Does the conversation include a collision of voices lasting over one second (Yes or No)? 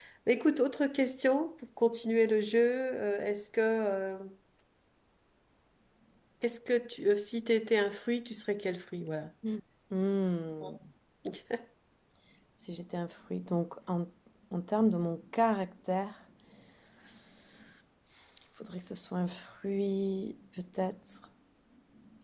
No